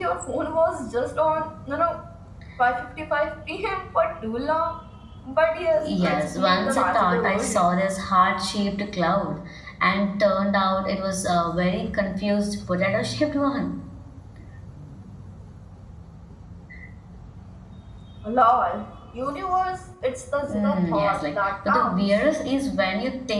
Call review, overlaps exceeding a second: present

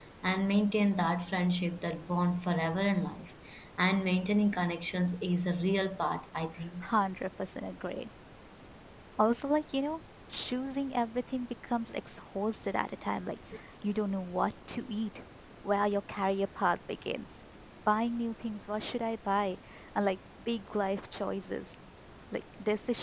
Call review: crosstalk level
none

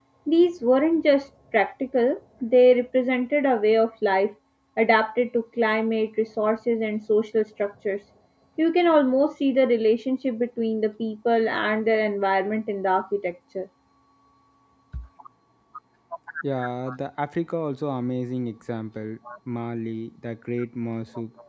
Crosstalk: none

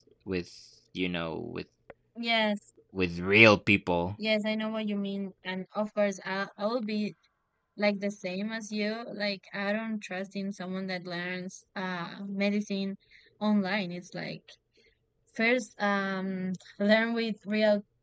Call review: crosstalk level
none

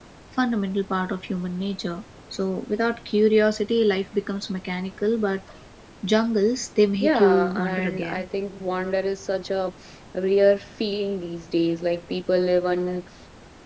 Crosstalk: present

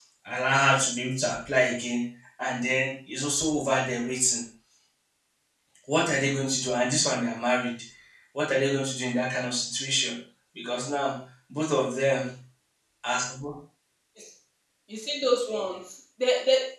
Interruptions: none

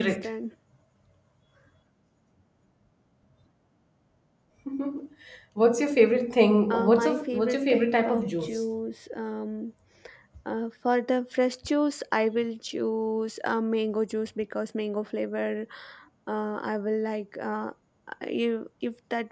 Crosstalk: present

